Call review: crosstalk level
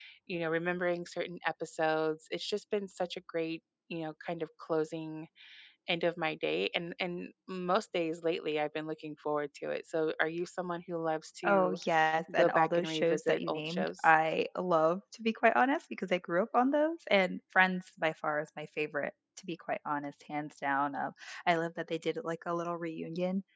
present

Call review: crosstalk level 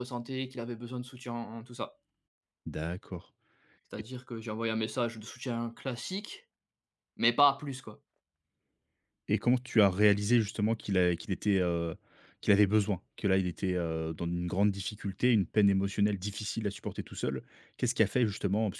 none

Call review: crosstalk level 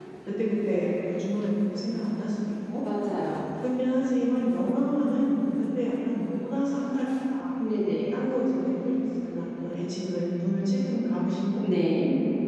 none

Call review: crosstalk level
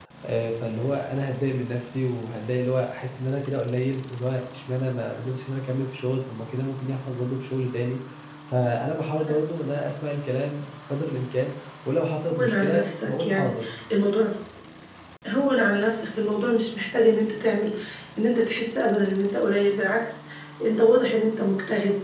present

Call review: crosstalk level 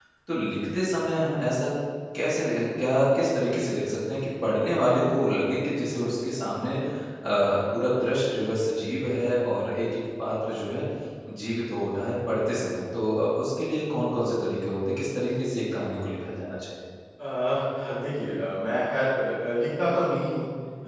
none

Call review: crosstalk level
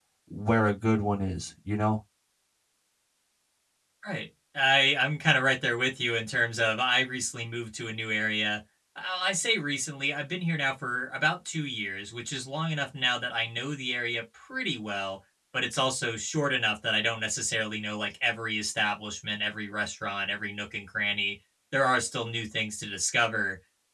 none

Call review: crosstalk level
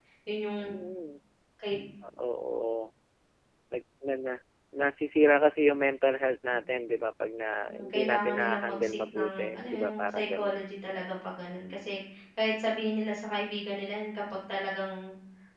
present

